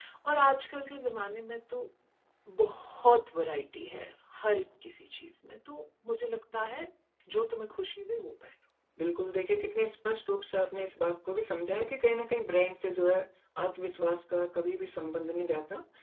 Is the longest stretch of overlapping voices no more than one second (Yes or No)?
Yes